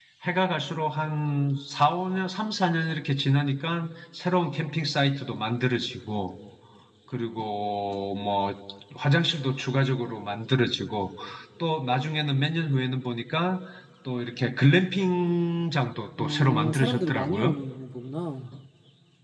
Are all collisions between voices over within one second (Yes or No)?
No